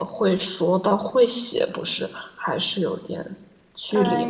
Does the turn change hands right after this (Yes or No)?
Yes